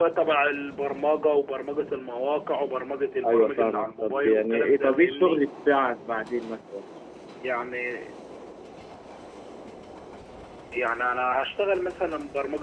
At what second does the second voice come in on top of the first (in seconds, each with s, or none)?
3.2 s